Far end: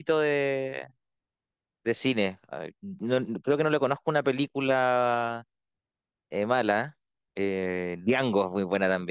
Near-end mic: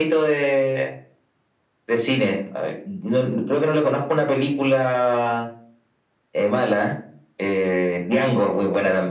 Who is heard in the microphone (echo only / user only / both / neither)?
echo only